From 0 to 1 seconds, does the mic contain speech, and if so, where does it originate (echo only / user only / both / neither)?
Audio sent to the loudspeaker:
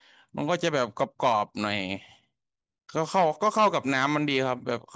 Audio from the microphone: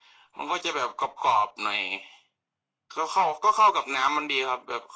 echo only